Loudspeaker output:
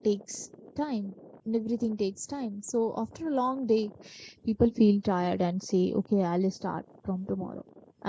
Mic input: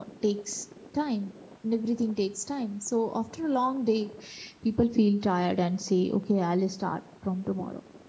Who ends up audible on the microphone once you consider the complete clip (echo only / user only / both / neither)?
echo only